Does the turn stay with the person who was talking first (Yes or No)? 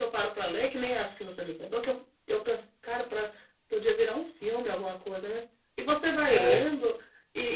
Yes